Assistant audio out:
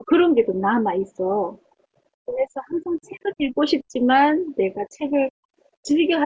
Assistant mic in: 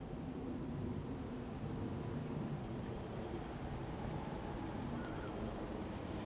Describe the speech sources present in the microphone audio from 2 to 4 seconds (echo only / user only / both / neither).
neither